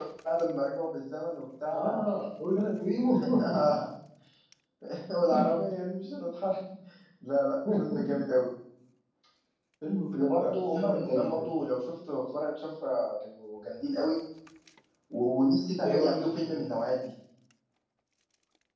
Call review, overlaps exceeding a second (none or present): present